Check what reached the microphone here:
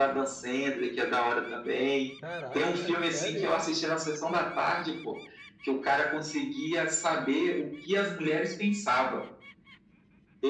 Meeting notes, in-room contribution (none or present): present